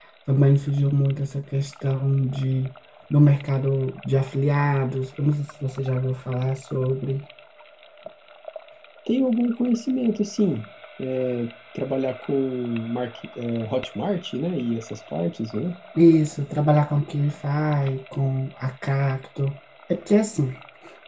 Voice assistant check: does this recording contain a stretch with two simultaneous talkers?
No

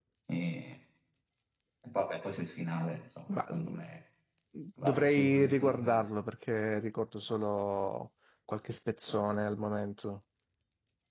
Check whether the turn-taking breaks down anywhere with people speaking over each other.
Yes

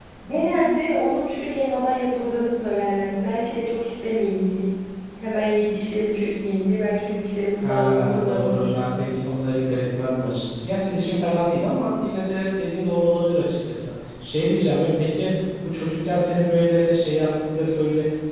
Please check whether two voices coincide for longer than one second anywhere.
Yes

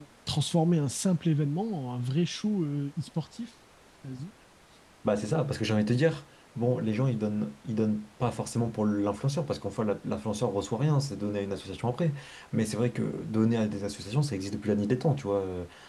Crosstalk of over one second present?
No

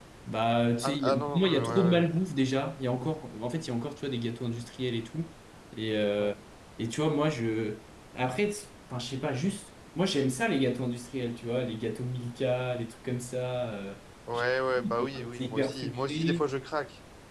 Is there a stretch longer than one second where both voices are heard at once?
Yes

